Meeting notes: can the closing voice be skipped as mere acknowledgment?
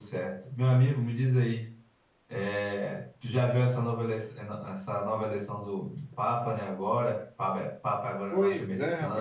No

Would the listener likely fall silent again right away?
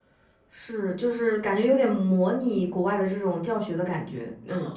No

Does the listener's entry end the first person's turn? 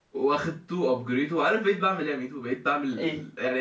No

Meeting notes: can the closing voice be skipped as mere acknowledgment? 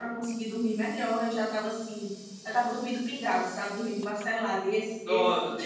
No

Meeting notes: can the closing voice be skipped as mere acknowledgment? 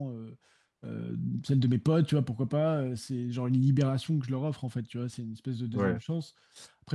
Yes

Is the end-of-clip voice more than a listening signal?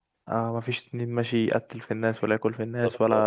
No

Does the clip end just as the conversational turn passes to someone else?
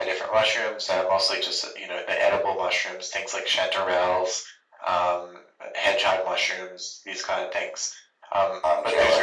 No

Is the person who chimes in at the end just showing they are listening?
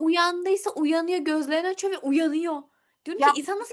Yes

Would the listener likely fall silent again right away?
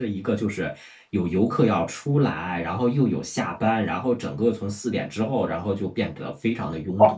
No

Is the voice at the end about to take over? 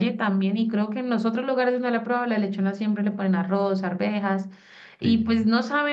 No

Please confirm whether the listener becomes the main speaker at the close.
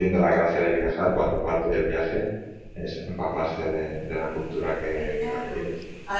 Yes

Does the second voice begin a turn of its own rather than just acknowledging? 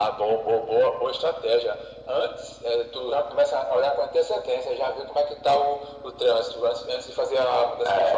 Yes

